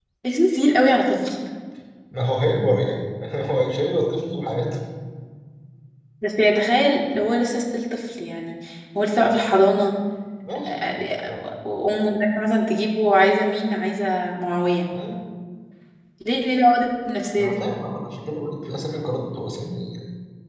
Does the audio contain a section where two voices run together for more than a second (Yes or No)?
No